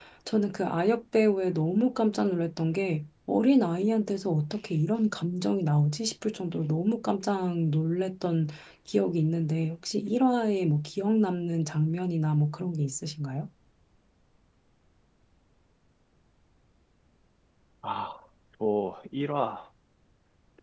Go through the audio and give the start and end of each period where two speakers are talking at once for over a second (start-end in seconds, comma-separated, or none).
none